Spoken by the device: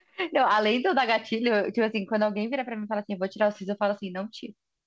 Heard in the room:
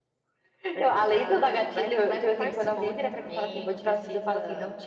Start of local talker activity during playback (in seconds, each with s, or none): 0.7 s